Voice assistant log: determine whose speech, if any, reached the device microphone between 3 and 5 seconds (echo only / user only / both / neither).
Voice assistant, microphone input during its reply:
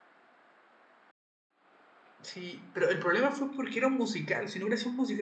user only